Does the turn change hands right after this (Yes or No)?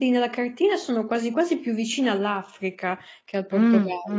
Yes